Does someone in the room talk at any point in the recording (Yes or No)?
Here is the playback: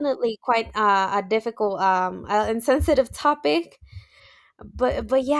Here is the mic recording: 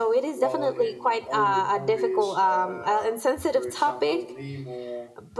Yes